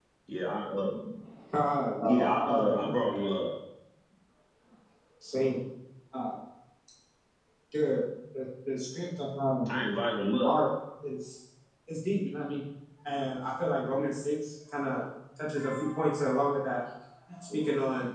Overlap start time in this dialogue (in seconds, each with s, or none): 2.0 s